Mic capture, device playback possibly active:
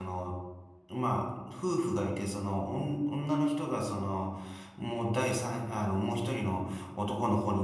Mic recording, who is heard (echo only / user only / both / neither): user only